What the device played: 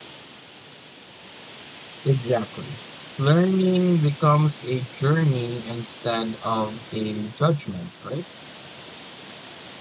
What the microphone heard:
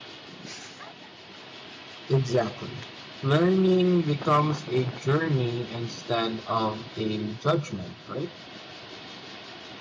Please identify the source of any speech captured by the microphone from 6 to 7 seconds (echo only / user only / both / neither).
echo only